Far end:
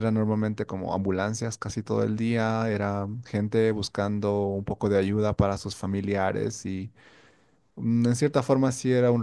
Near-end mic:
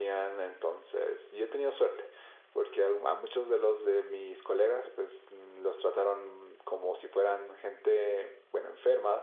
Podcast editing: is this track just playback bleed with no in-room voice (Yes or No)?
No